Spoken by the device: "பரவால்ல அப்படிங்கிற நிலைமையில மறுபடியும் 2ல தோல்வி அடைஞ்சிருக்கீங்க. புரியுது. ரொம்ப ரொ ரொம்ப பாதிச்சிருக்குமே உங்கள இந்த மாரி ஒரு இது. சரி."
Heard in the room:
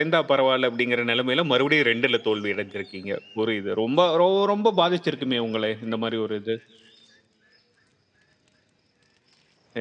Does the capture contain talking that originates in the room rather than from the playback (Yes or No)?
No